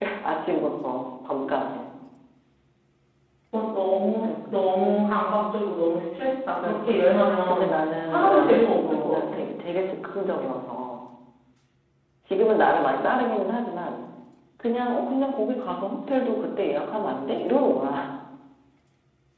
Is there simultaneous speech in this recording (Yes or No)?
Yes